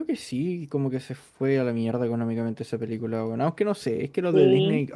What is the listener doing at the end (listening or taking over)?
listening